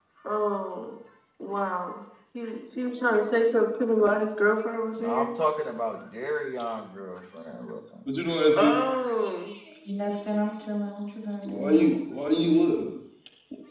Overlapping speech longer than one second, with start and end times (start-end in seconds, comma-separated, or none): none